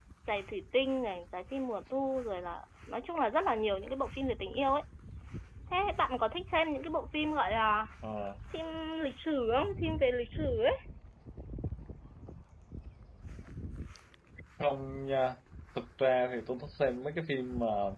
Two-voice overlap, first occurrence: none

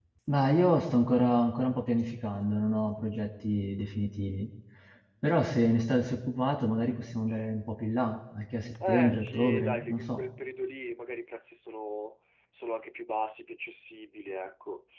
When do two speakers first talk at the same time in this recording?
8.8 s

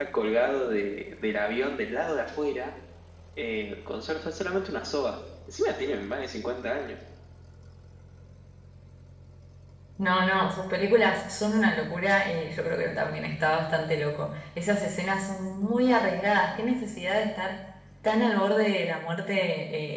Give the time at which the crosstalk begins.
none

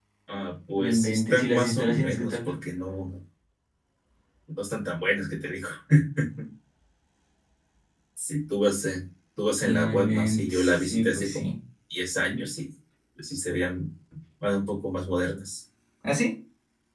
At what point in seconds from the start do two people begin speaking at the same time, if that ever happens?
0.8 s

